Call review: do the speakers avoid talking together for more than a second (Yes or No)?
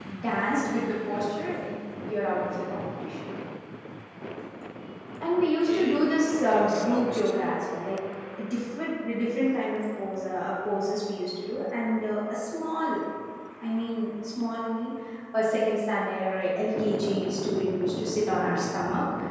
No